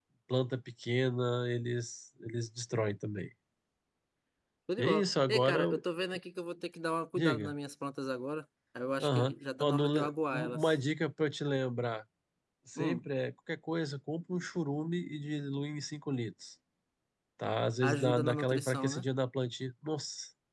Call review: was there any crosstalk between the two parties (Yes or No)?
Yes